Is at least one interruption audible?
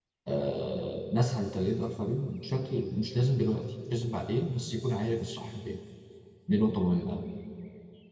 No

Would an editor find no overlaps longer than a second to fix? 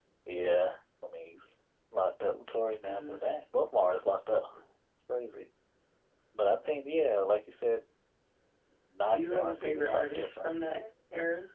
No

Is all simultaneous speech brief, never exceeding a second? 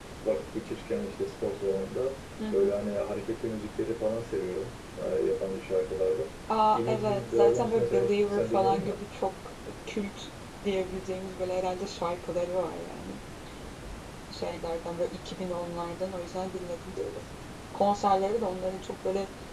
No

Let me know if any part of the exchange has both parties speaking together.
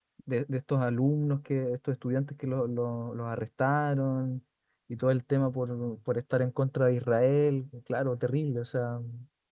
No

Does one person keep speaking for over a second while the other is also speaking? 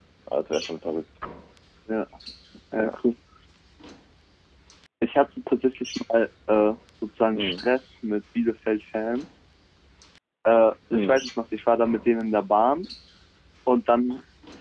No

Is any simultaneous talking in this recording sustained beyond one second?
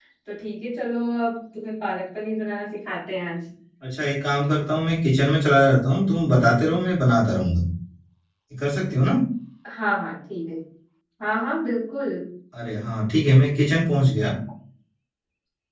No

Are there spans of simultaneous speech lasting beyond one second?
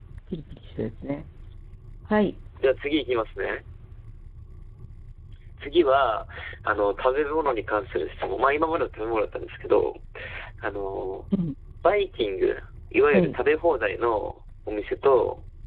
No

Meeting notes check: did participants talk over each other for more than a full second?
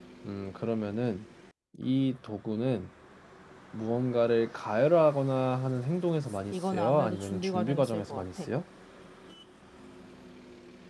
Yes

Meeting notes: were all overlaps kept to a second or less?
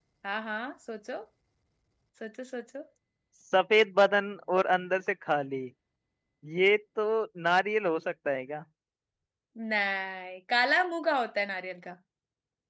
Yes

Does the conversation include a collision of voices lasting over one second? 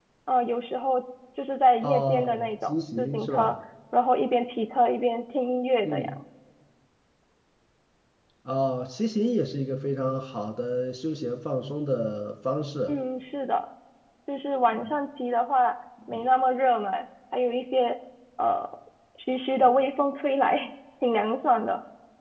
Yes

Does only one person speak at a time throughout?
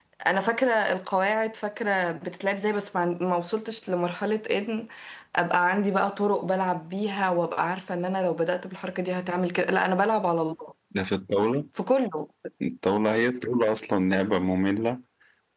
Yes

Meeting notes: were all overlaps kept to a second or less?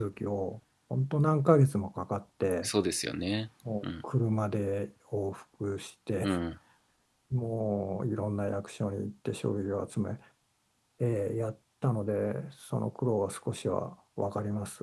Yes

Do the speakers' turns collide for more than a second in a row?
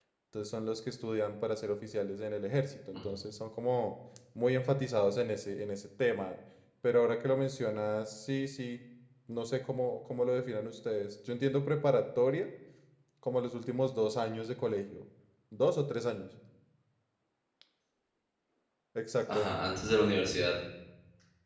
No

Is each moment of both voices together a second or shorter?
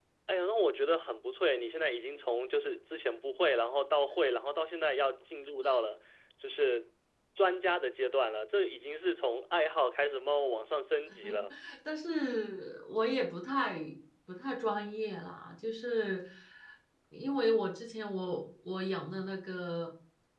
Yes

